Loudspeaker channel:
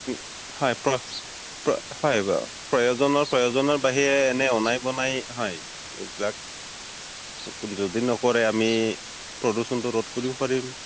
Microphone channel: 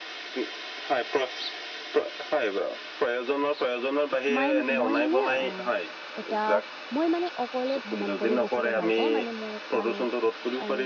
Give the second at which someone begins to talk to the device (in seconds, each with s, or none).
4.3 s